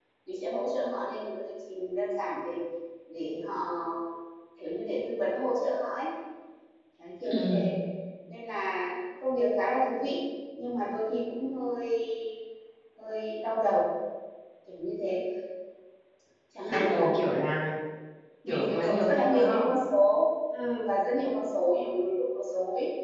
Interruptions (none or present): present